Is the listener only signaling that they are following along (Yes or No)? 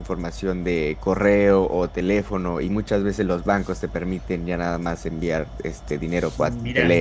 No